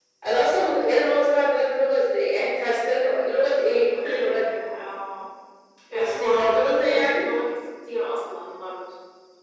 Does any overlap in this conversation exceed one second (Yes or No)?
Yes